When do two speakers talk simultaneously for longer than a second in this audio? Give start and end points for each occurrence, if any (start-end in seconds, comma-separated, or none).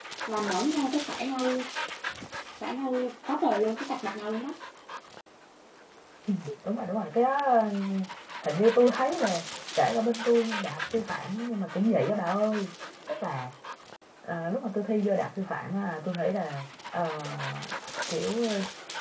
none